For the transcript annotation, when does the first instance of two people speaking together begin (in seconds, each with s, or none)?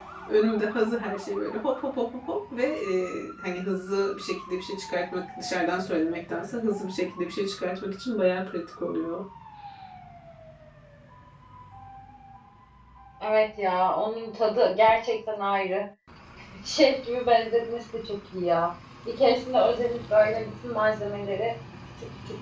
none